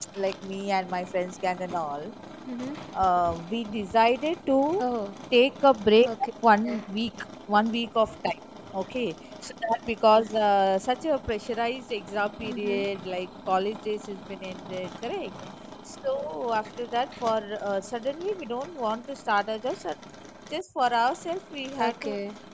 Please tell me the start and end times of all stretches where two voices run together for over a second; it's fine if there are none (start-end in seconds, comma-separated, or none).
none